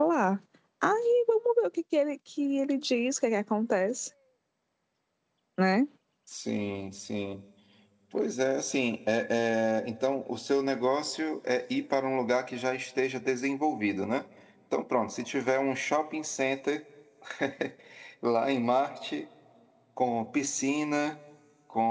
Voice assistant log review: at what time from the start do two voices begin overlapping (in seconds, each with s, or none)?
none